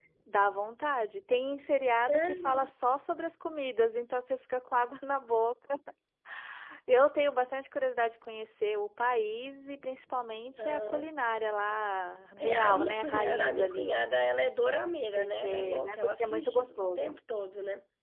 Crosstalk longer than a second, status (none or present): present